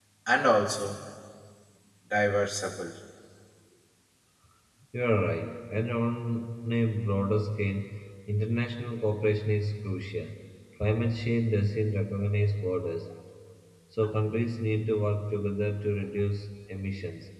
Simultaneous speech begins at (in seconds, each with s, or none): none